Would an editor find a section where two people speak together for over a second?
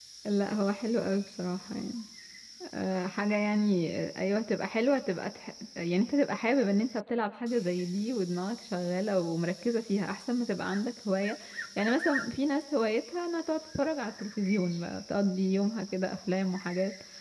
No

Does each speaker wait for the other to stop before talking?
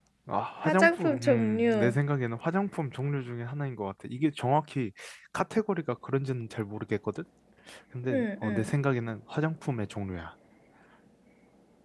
No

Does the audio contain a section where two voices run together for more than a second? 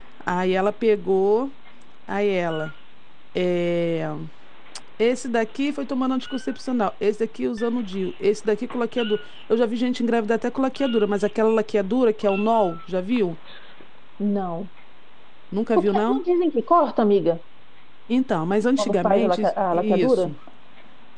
Yes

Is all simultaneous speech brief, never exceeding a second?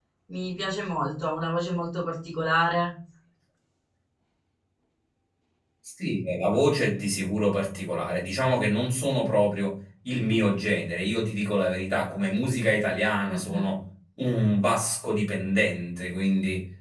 Yes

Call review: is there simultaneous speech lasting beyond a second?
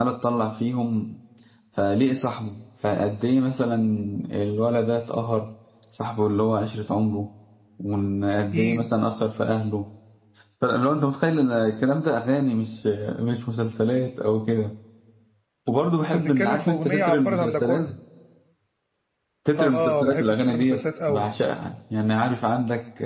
Yes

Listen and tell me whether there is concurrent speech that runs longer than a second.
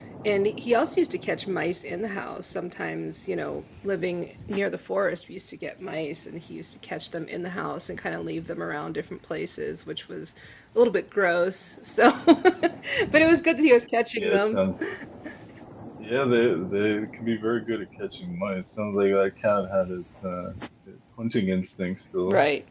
No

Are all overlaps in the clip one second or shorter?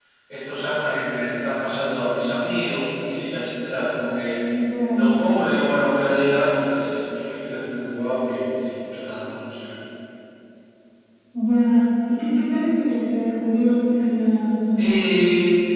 Yes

